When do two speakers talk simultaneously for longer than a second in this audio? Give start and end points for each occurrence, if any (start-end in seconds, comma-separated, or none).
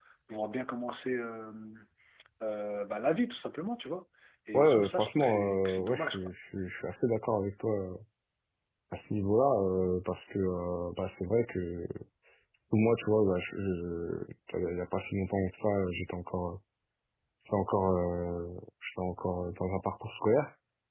4.5-6.3